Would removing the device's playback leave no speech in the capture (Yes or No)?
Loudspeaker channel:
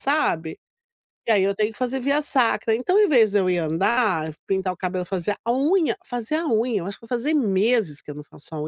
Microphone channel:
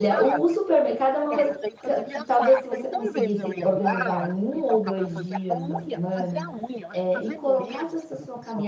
No